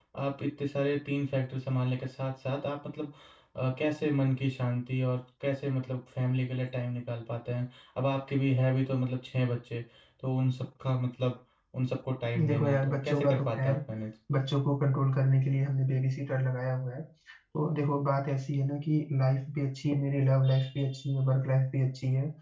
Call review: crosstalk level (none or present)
present